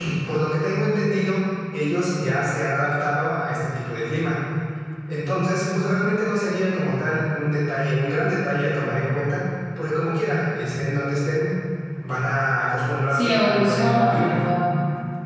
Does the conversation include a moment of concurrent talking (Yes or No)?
Yes